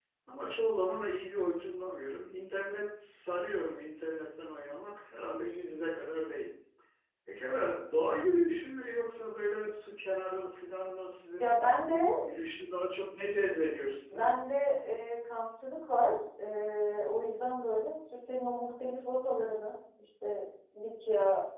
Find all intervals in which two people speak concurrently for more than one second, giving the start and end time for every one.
none

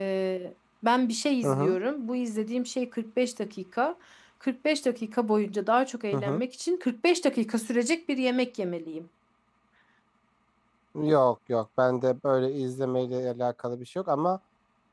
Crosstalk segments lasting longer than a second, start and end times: none

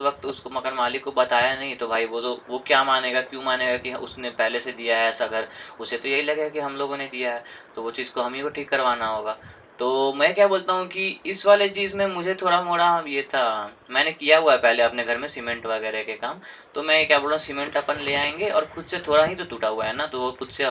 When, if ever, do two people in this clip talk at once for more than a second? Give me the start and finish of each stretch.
none

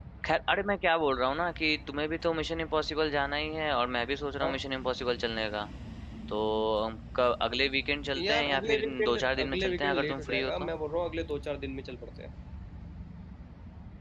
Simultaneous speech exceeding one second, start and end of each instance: 8.2-10.7

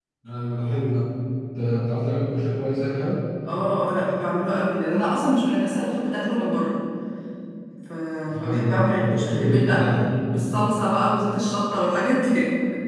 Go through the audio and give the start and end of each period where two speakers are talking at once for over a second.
8.4-10.0

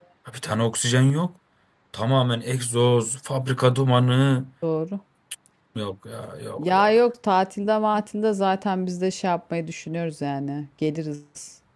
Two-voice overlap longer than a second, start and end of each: none

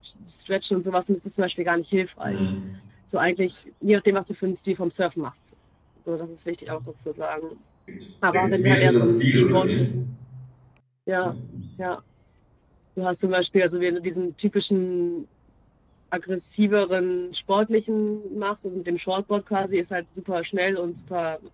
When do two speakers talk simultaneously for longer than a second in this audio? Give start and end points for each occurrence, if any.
8.3-9.8

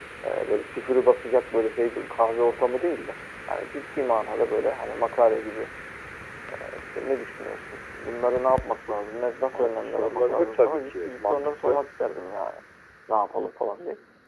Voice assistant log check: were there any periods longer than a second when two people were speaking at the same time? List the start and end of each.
9.5-11.8

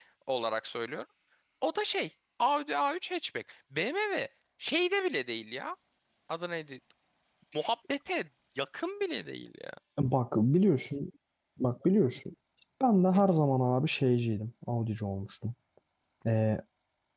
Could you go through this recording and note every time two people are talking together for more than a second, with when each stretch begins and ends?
none

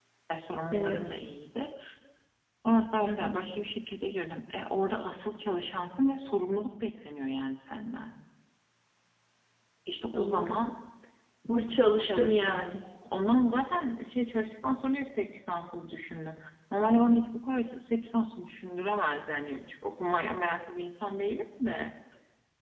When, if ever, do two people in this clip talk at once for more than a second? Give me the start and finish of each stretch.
none

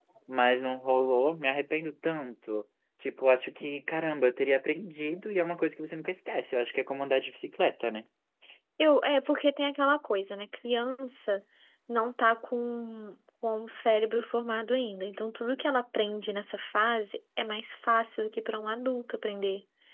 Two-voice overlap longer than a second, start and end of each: none

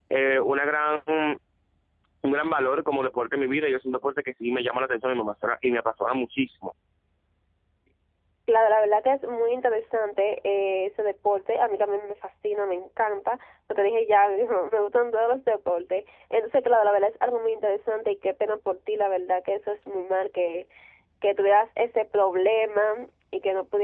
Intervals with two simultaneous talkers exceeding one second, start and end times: none

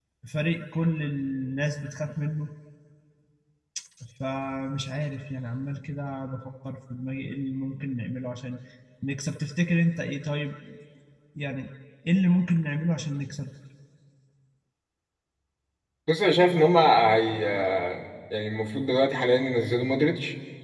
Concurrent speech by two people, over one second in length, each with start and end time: none

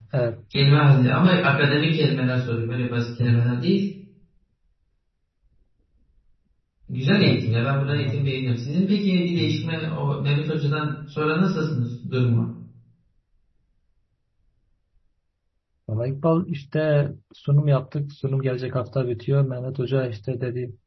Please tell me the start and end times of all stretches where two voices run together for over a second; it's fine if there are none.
none

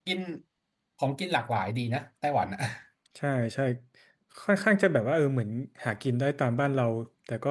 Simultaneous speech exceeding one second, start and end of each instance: none

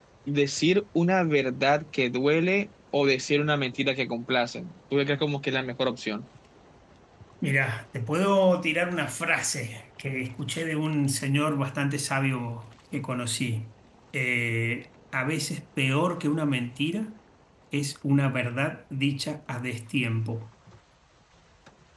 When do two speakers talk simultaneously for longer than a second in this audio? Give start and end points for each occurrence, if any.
none

